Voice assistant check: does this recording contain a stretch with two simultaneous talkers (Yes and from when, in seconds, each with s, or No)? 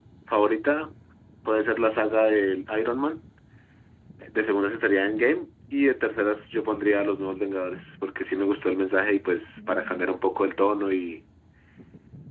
No